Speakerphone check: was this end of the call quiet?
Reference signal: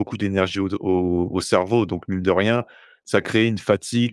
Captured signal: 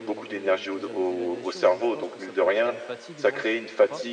No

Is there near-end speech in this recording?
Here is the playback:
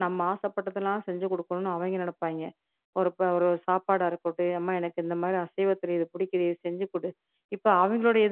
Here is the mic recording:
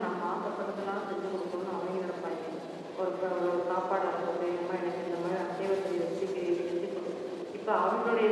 No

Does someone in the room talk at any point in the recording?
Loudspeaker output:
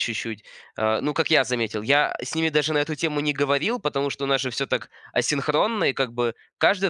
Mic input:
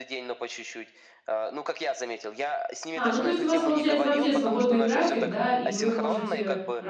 Yes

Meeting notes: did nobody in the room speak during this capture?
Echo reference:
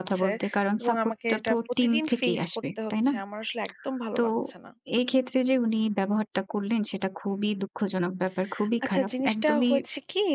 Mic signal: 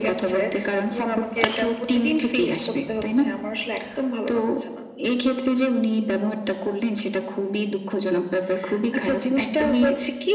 Yes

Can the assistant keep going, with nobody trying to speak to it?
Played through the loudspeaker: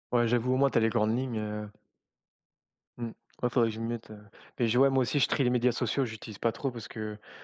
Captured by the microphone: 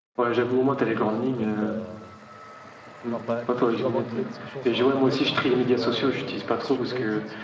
No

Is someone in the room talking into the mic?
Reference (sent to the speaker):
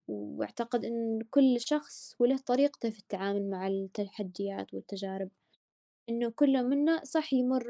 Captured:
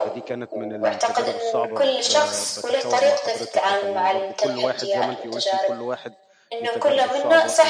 Yes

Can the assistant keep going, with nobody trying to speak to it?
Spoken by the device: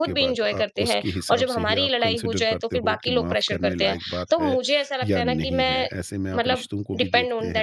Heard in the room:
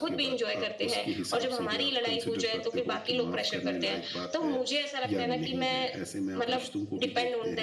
Yes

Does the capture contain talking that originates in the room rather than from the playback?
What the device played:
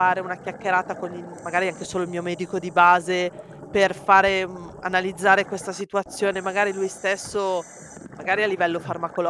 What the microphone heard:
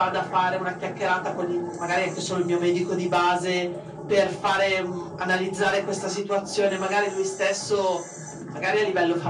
No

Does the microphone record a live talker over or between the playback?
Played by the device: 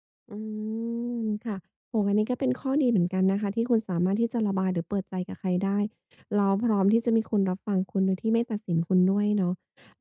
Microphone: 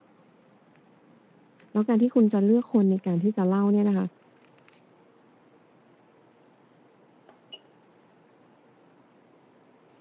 Yes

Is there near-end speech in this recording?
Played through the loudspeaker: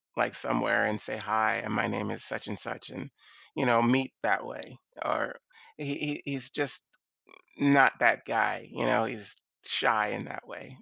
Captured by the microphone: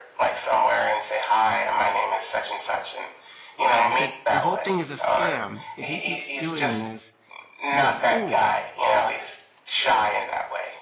Yes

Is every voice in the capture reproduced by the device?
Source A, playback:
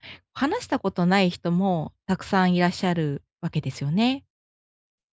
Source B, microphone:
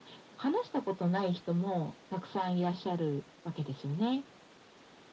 Yes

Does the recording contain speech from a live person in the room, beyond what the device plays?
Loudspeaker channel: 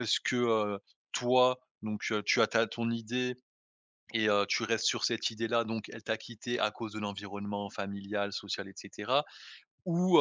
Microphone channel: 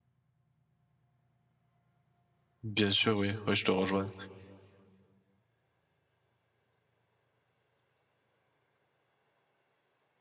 Yes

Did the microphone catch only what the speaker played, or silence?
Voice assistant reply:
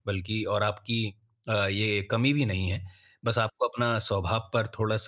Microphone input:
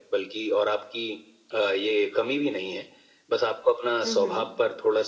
No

